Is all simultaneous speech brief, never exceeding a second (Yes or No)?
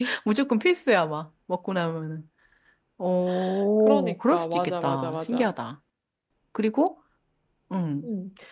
No